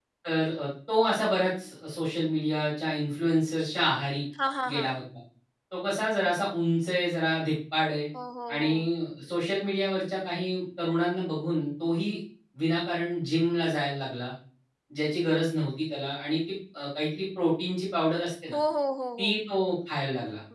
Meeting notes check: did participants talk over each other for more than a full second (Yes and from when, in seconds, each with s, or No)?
No